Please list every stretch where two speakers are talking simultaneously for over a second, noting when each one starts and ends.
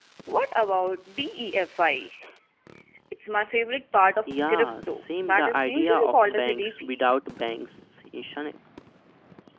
4.3-6.9

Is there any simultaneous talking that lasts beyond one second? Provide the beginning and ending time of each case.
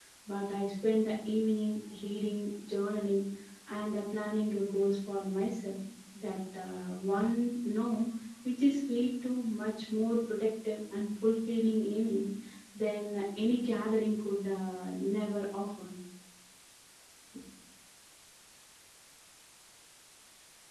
none

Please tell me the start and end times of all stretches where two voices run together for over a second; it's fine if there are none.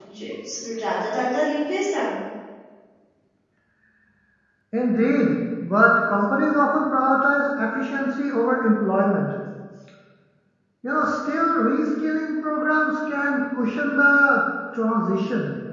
none

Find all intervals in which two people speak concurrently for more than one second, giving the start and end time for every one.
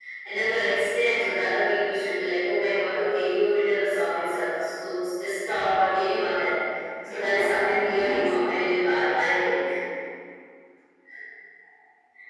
7.2-8.6

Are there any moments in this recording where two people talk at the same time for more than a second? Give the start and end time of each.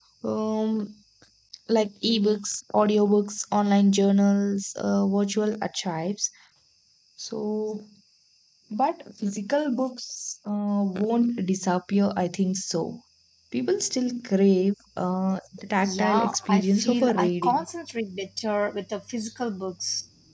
15.8-17.6

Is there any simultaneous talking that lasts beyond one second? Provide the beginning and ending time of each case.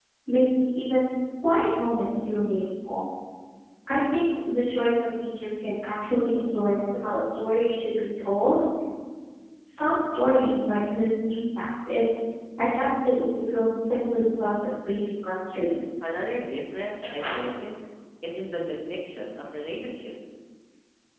none

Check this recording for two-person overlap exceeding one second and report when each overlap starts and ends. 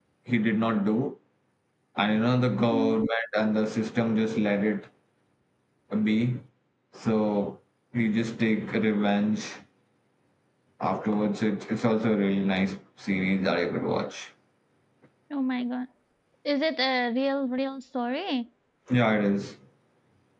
none

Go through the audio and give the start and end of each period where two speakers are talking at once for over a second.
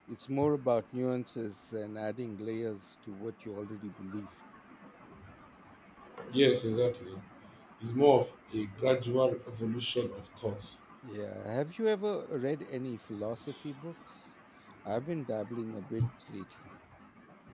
none

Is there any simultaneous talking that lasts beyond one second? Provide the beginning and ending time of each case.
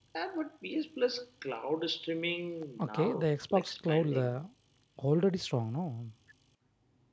2.8-4.3

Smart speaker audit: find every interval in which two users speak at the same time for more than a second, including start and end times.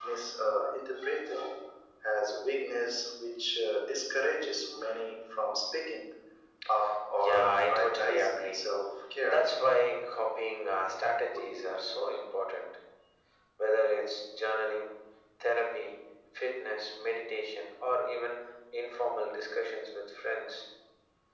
7.2-8.7

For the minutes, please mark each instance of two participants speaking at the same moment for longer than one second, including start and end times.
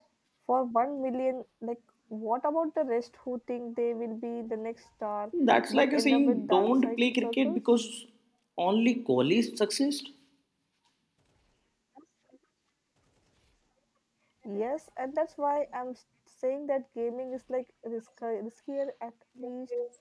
5.7-7.6

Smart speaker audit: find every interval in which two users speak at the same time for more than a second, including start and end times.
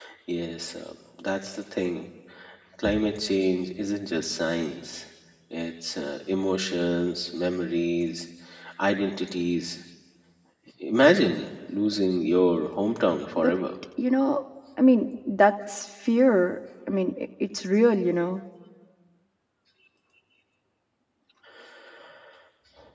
none

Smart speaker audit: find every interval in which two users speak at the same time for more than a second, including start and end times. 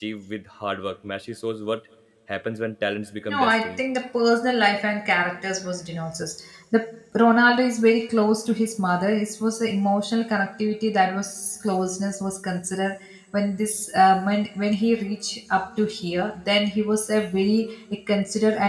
none

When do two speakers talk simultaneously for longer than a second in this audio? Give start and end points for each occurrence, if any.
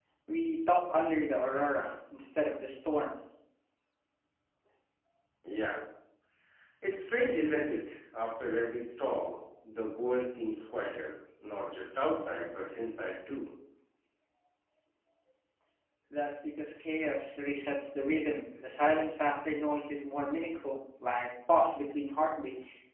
none

